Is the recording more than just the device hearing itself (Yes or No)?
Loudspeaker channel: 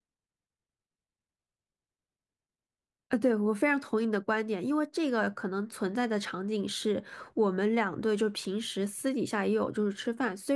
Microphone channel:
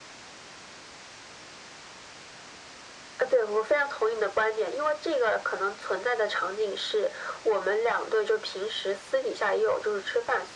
No